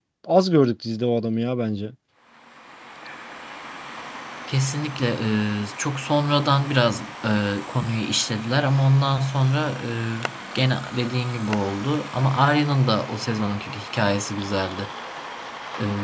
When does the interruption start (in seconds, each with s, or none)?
none